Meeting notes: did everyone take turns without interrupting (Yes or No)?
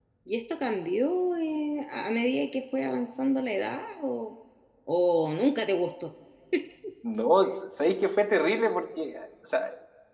Yes